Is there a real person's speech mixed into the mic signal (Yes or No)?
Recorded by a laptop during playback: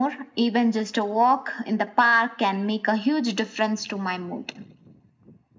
No